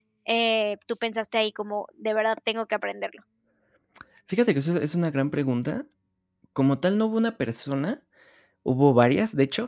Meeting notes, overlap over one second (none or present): none